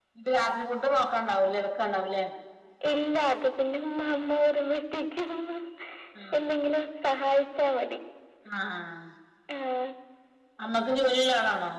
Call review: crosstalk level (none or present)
none